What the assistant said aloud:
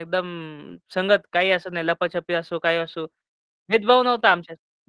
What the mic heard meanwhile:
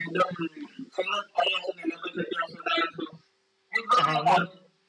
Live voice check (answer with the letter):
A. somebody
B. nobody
A